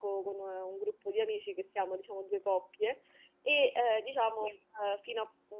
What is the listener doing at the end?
listening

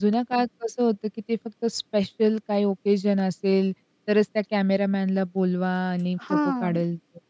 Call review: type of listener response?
listening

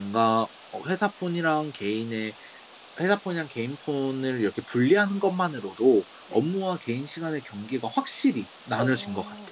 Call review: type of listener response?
taking over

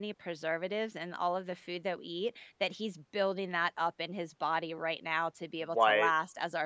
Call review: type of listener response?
listening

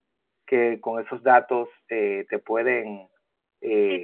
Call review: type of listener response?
taking over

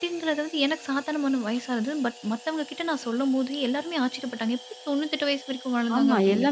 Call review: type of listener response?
taking over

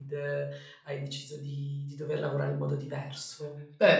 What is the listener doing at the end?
taking over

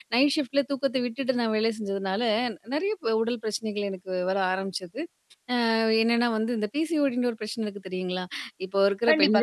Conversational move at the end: taking over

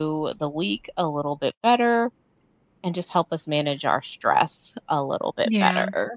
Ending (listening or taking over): taking over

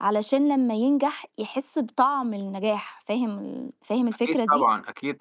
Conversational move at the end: taking over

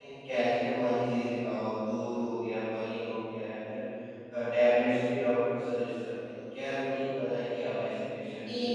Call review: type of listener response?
taking over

